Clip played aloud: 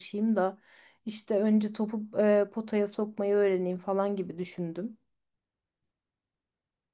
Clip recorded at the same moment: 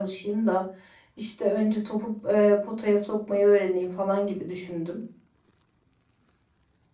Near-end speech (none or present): none